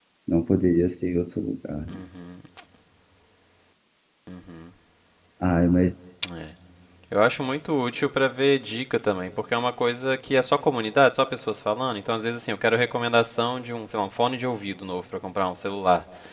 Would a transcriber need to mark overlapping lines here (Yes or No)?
No